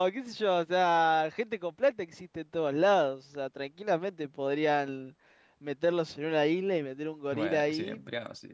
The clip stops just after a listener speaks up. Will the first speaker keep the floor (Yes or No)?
No